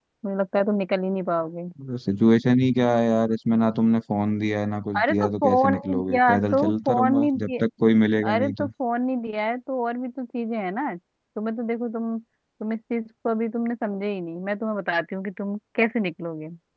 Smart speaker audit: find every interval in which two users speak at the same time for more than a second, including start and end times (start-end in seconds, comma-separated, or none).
5.0-7.6